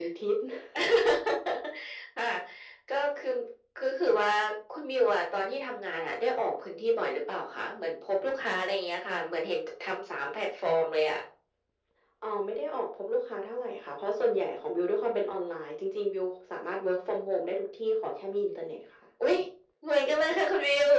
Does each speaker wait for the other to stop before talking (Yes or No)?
Yes